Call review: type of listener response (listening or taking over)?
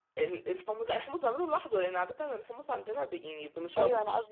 taking over